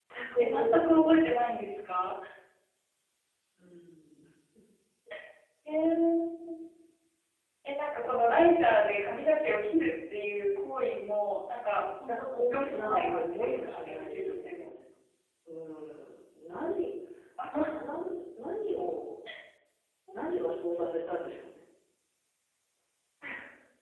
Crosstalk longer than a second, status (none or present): present